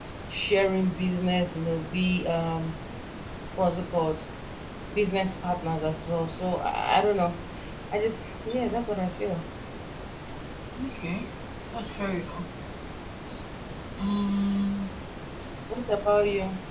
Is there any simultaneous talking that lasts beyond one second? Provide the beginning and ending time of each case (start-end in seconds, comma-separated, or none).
none